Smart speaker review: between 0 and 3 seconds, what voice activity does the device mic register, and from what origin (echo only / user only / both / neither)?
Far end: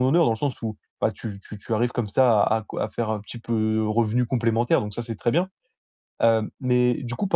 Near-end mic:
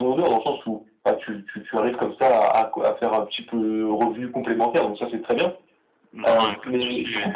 echo only